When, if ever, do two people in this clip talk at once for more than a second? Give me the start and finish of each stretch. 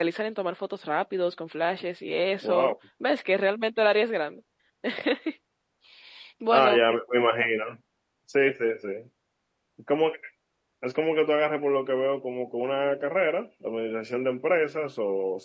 none

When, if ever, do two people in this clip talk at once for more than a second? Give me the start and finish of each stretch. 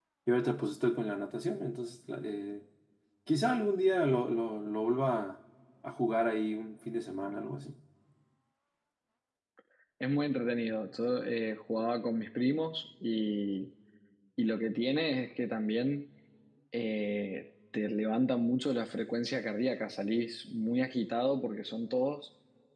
none

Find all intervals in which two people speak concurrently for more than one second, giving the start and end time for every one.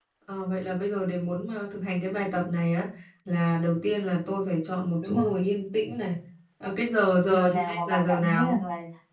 7.2-8.6

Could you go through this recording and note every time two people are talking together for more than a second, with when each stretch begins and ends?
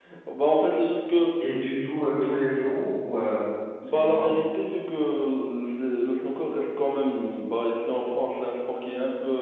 none

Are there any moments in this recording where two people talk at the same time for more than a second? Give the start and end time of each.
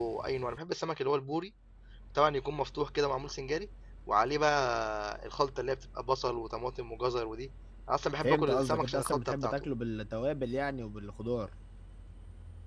8.2-9.7

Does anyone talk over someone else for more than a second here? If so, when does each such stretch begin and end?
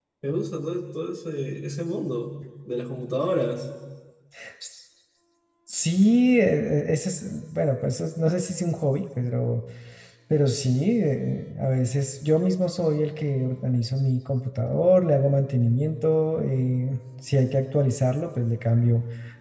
none

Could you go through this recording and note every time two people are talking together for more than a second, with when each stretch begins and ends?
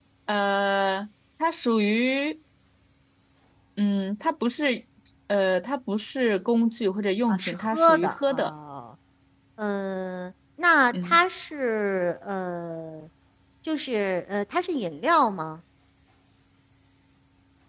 7.3-8.5

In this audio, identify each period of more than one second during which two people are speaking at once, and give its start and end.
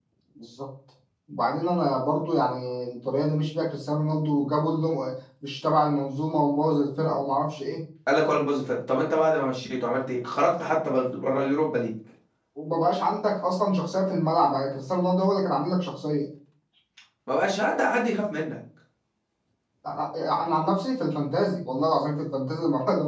none

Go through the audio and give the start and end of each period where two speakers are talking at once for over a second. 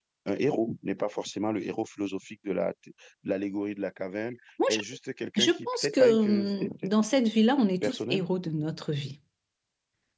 5.4-6.9

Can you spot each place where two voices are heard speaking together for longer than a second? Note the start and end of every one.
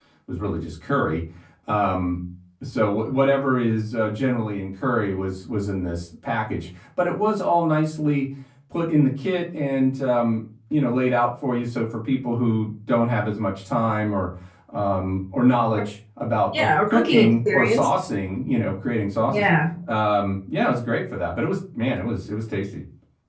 16.6-17.9

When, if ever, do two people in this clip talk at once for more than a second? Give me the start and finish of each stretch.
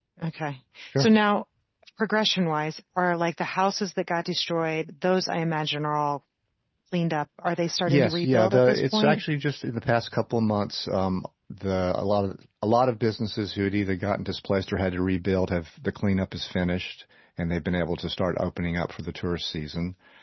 7.9-9.2

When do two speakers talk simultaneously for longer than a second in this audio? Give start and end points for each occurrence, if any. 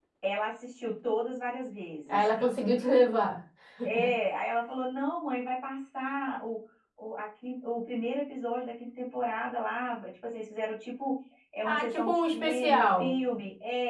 11.6-13.1

